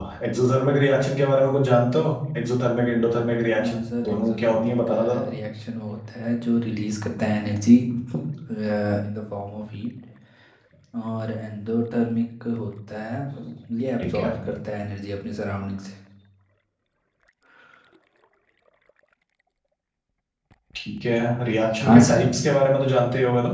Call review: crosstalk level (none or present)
present